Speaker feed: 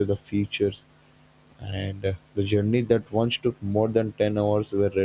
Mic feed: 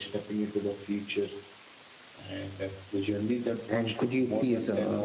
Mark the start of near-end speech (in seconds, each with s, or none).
3.7 s